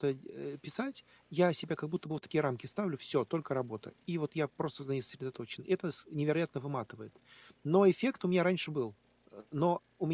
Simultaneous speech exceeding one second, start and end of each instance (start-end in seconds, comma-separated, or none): none